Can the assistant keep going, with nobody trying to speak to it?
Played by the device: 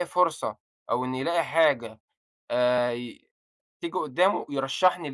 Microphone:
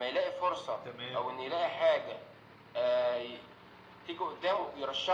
No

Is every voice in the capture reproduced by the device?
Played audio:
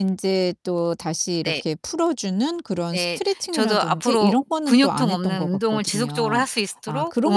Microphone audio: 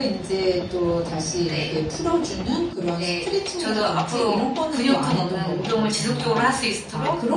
Yes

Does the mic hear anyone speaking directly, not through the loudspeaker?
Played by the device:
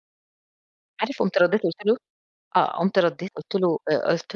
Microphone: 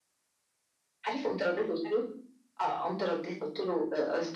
No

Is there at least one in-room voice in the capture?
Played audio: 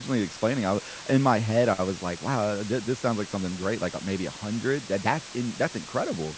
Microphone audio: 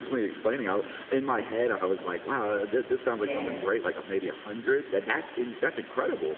Yes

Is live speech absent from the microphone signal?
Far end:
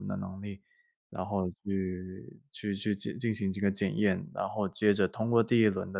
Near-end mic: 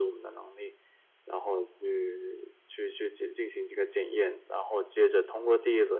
Yes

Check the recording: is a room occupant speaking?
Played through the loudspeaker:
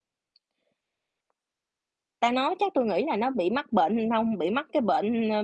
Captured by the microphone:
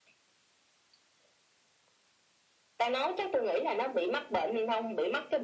No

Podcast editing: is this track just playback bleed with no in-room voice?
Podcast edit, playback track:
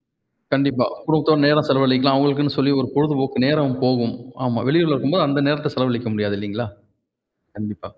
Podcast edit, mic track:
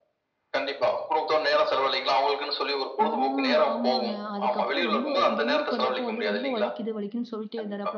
No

